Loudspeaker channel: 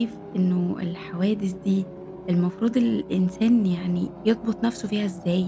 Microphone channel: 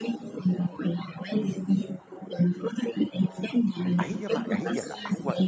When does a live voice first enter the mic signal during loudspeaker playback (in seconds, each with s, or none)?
4.0 s